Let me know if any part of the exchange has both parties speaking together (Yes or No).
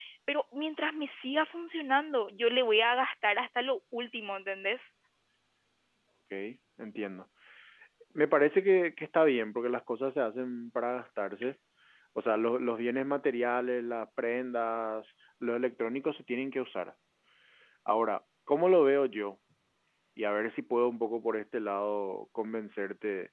No